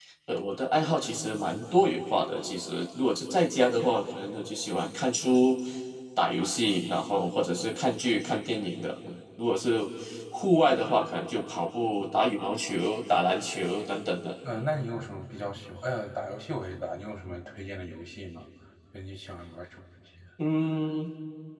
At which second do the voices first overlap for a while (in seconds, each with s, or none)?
none